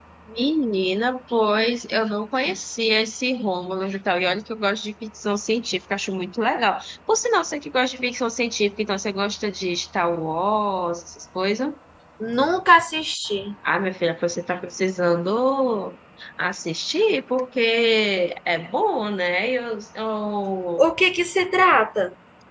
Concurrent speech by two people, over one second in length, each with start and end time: none

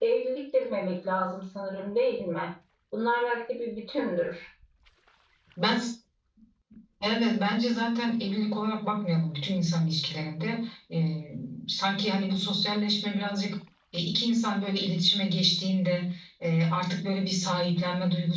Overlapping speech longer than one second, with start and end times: none

